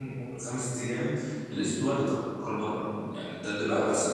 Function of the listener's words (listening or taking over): taking over